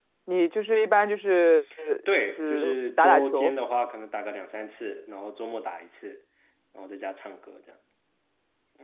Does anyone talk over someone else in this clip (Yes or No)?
Yes